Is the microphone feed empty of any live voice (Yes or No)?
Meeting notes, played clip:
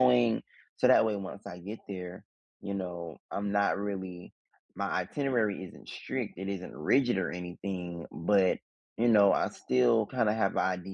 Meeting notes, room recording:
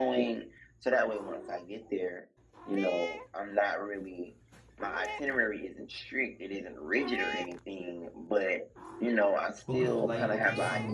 No